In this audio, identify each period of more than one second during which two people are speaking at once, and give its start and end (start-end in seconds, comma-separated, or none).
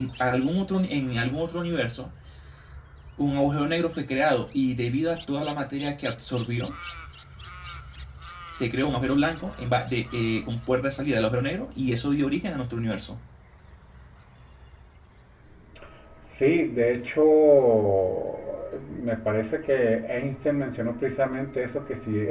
none